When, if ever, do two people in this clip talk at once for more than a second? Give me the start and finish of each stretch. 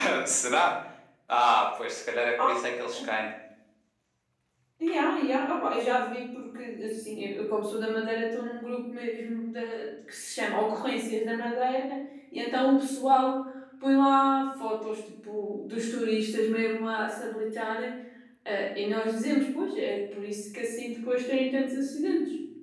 none

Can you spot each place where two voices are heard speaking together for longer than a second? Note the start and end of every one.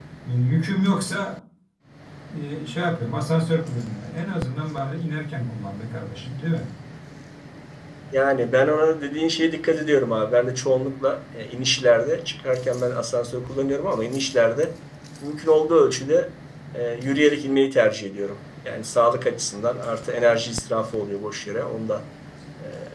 none

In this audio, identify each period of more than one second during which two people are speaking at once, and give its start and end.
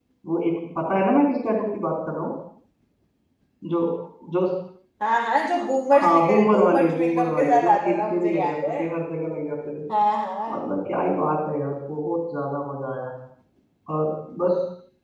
6.0-8.8

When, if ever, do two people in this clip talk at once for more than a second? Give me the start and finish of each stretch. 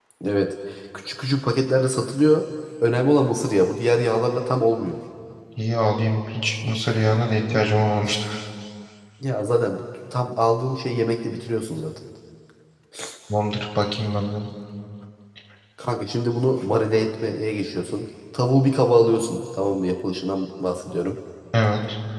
none

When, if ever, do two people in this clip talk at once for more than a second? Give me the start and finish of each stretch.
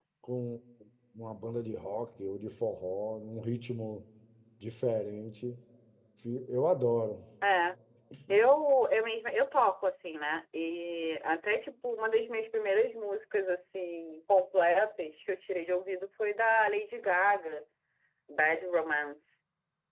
none

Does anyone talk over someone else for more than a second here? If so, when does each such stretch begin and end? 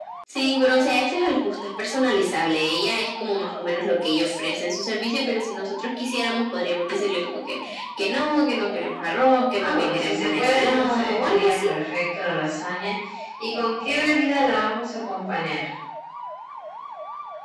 9.6-11.7

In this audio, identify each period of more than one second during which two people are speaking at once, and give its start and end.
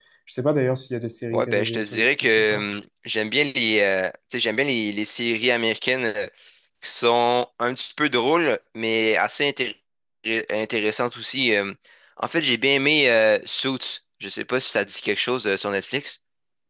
1.3-2.6

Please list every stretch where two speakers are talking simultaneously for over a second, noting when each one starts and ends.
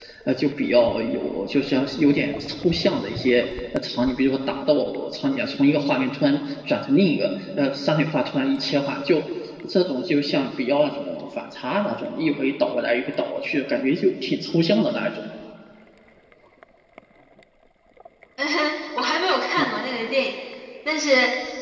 none

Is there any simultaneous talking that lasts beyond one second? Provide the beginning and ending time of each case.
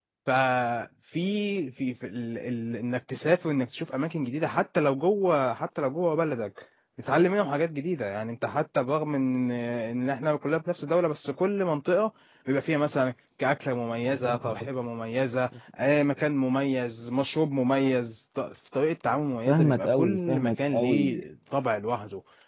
19.5-21.2

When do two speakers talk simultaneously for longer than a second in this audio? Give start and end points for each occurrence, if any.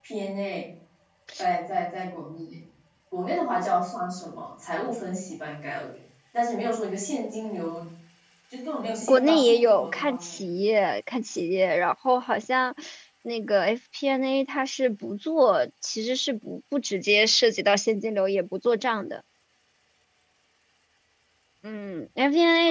9.0-10.4

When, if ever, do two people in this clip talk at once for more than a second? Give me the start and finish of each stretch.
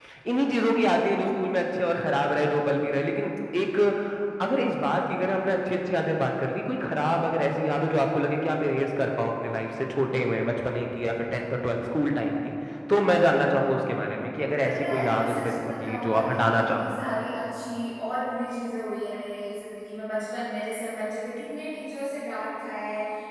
14.6-16.9

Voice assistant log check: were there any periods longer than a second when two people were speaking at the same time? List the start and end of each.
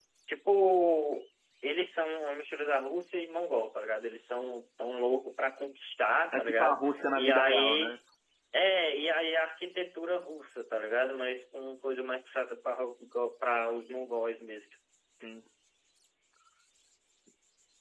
6.3-8.0

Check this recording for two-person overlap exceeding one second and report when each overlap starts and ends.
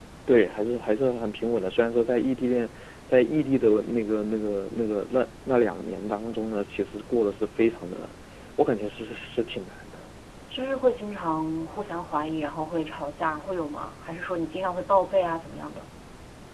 none

